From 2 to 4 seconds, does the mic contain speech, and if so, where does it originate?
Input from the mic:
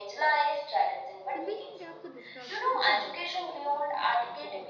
both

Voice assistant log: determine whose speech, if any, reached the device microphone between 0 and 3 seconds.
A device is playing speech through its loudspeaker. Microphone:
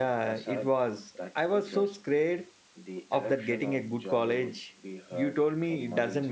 both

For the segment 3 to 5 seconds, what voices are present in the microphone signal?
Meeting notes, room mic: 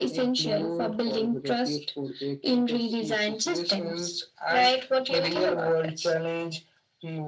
echo only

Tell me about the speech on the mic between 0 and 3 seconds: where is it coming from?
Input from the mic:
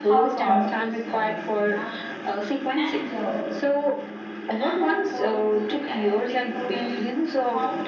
both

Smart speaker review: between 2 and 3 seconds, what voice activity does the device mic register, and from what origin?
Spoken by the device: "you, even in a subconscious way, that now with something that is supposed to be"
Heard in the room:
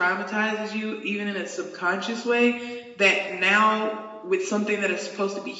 echo only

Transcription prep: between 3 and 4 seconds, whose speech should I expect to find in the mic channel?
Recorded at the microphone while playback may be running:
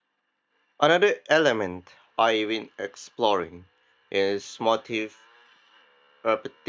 user only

